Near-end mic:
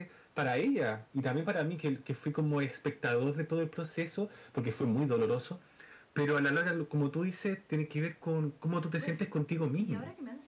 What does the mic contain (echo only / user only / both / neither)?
both